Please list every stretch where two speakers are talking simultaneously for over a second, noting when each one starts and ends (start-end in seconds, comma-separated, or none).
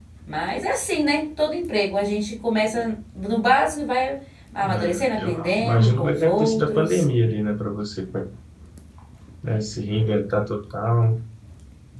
4.6-7.0